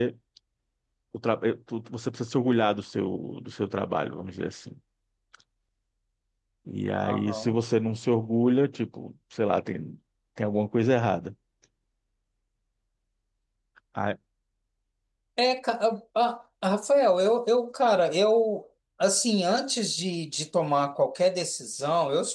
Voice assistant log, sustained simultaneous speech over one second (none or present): none